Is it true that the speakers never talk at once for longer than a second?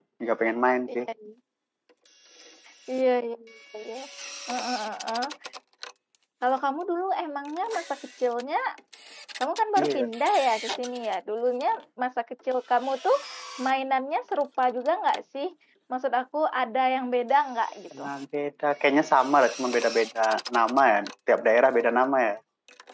Yes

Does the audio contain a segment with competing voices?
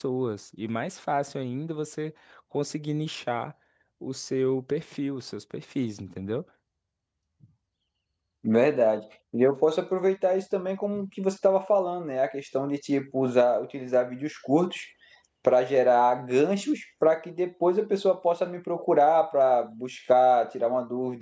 No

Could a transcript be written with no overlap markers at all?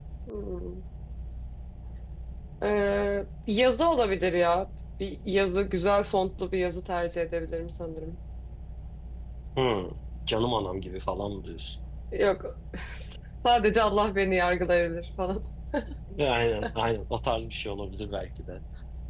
Yes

